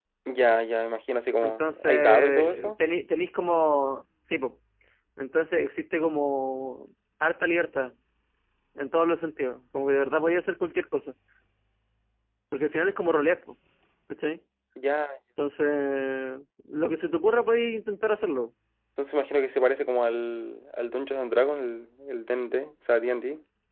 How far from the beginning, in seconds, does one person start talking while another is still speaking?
1 s

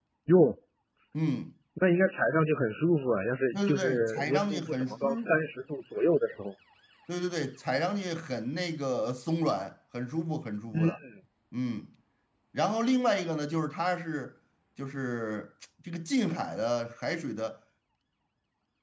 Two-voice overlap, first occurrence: 4 s

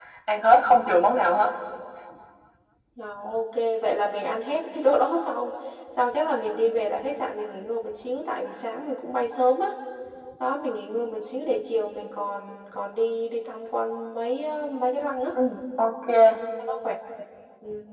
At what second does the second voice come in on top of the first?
none

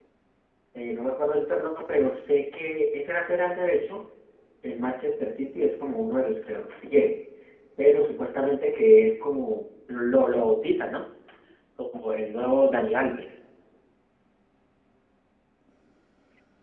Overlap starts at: none

